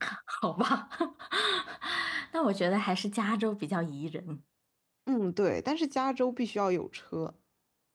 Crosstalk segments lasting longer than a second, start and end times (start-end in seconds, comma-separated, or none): none